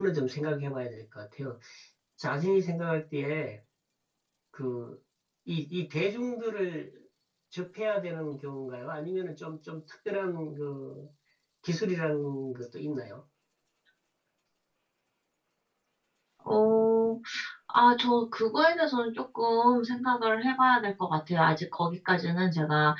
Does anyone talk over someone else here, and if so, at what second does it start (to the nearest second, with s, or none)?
none